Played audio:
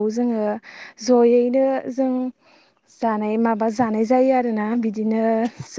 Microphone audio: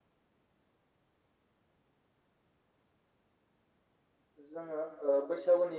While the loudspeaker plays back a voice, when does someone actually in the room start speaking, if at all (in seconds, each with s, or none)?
4.5 s